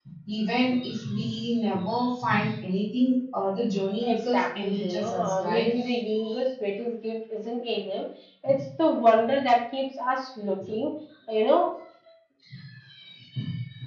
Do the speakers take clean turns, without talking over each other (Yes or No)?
No